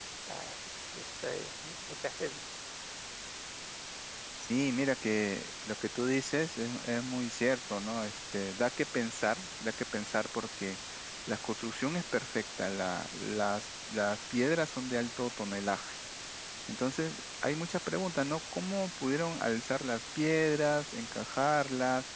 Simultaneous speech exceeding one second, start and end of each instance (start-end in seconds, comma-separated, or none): none